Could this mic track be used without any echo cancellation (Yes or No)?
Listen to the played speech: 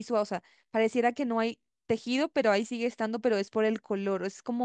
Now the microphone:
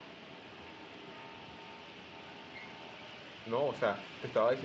Yes